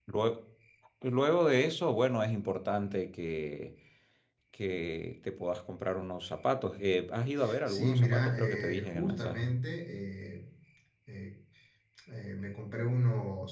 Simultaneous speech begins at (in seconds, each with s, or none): 7.7 s